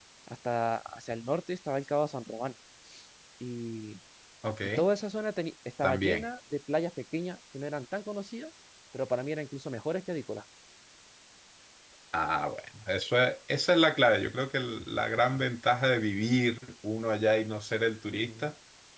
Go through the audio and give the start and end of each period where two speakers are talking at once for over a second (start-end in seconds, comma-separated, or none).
none